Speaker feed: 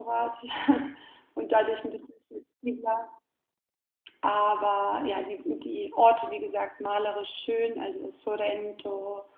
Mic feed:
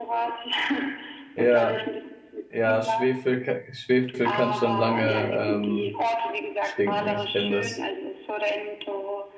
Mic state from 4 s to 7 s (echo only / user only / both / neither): both